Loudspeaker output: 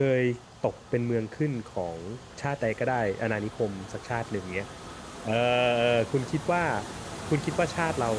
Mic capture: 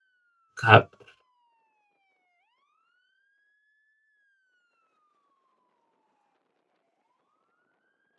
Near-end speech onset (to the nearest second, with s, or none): 1 s